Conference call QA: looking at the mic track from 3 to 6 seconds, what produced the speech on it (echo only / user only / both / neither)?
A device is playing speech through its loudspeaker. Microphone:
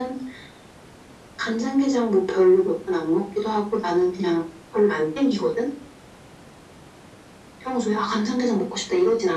echo only